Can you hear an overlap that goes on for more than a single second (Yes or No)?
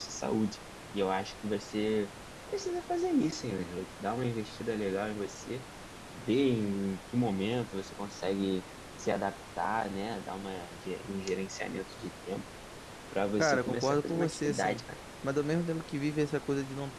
Yes